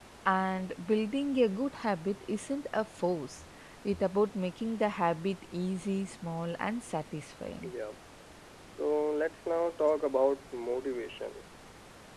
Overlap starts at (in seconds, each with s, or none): none